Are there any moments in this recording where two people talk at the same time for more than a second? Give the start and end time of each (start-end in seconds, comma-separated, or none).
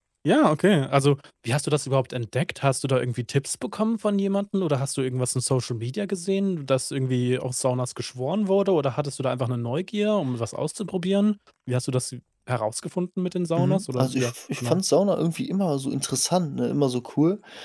13.6-14.8